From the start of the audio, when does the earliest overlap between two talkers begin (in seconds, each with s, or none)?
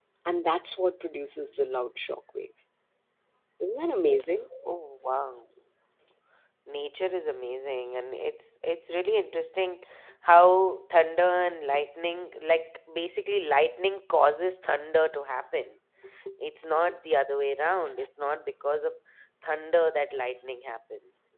none